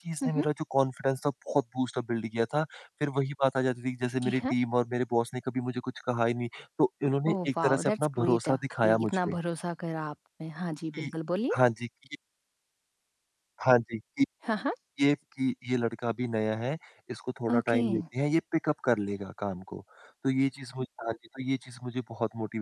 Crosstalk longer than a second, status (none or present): present